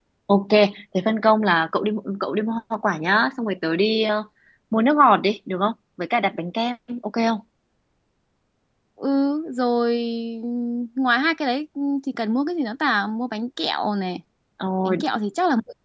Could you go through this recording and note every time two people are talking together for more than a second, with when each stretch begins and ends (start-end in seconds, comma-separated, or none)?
none